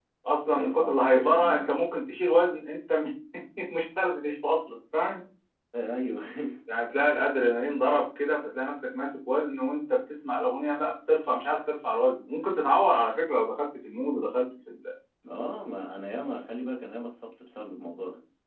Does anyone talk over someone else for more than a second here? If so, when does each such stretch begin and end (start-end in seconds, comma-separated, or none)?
0.6-1.9